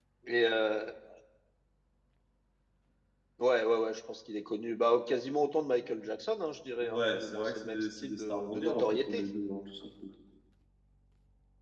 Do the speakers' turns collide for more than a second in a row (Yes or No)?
Yes